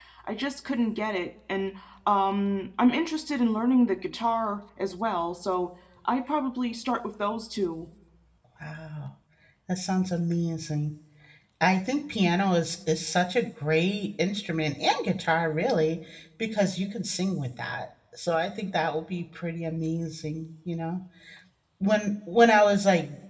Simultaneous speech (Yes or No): No